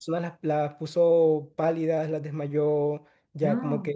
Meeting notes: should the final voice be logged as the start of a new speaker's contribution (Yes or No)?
No